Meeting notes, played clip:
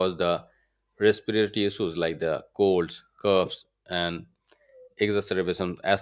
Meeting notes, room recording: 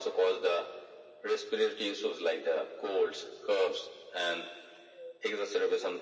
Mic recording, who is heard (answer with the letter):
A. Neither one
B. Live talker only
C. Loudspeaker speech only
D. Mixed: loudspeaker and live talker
C